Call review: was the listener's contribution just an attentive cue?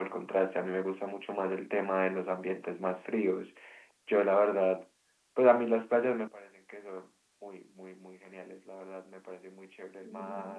Yes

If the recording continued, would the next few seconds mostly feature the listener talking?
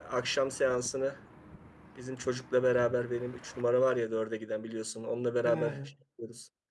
No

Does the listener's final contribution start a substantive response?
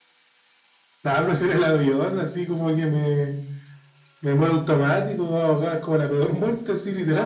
Yes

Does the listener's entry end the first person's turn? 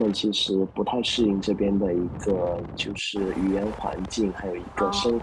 No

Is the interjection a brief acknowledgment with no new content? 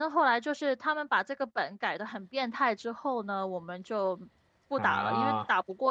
Yes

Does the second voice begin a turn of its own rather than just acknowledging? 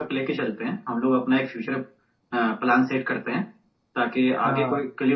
No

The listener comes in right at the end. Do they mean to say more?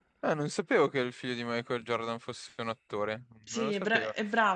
Yes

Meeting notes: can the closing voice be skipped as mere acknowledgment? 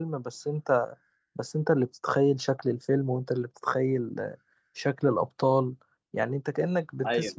Yes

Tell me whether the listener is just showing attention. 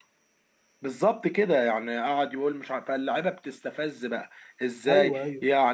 Yes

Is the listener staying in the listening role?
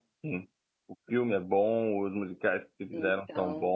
Yes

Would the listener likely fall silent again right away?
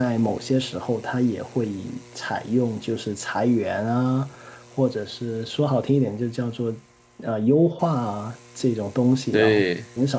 Yes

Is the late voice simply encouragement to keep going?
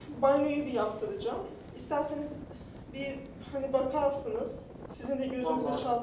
Yes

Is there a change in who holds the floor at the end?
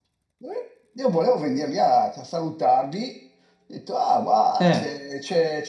No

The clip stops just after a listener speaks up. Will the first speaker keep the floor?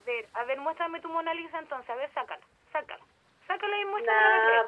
No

